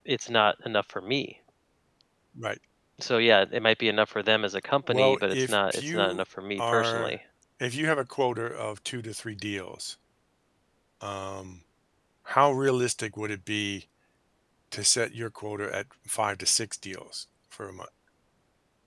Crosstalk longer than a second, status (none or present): present